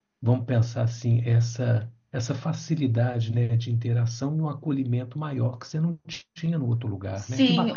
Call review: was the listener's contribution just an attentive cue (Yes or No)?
No